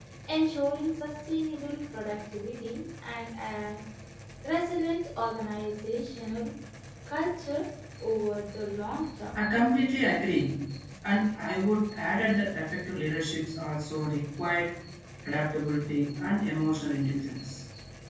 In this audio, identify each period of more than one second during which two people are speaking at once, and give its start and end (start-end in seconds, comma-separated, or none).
none